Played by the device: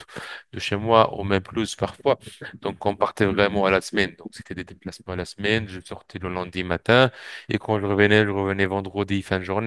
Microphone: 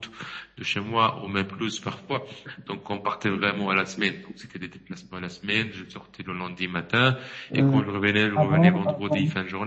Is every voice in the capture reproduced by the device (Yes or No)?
No